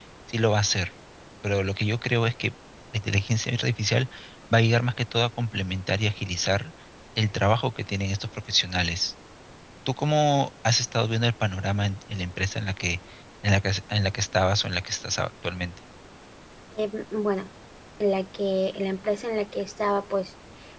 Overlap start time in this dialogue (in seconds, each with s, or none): none